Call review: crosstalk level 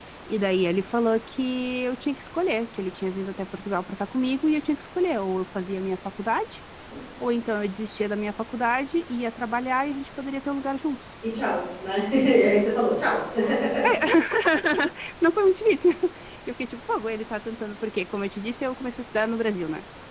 none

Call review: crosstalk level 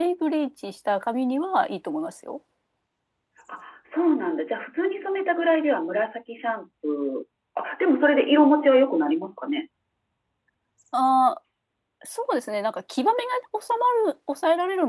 none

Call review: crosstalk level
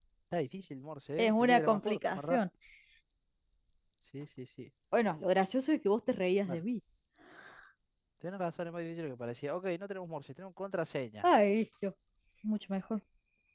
present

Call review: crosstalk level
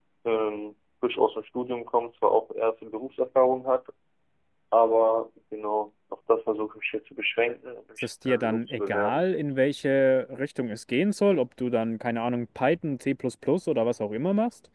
present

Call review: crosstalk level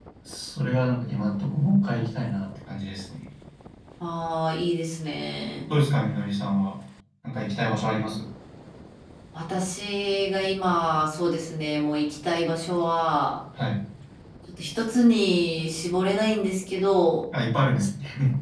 none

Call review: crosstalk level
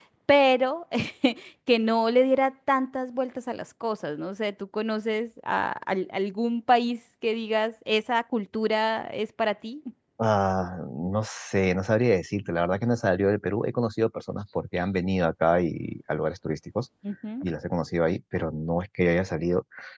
none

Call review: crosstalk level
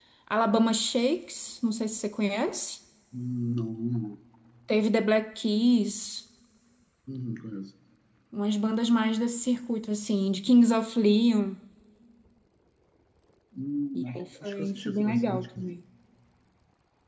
present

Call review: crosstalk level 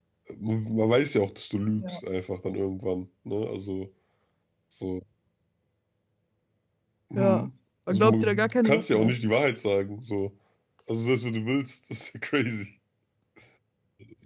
present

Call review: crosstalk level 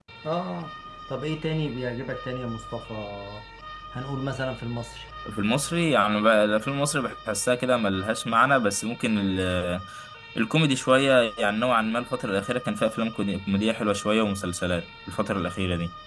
none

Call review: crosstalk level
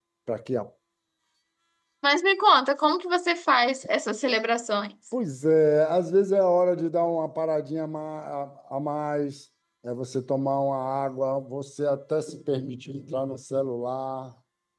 none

